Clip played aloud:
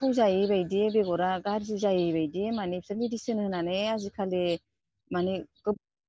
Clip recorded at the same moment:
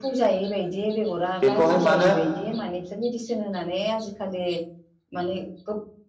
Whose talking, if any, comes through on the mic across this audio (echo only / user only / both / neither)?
both